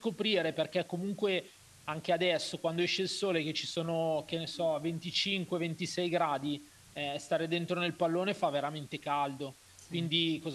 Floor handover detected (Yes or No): No